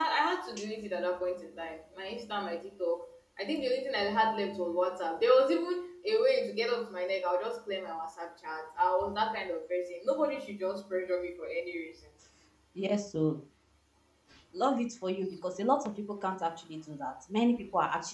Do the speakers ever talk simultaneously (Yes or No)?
No